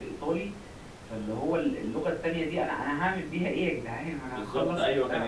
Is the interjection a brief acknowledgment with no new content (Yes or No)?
No